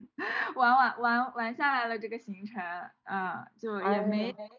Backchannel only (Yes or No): Yes